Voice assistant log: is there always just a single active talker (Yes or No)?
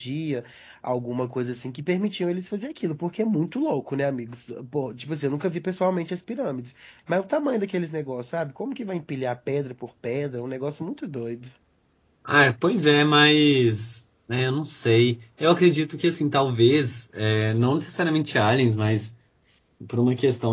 Yes